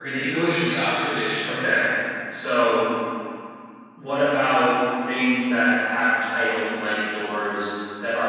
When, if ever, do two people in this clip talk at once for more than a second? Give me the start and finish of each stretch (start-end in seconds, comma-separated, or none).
none